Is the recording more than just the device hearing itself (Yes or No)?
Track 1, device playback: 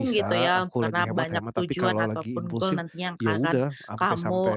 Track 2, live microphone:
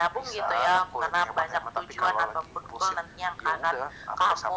No